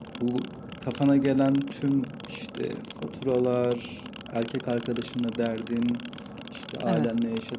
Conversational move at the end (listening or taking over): listening